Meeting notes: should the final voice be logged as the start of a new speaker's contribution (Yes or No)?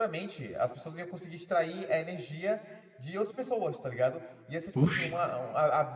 No